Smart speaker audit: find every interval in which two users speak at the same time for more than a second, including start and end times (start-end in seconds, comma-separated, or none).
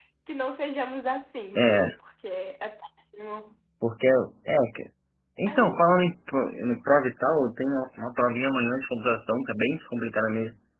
none